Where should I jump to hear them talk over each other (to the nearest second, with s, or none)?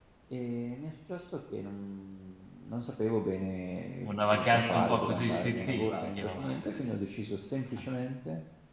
4 s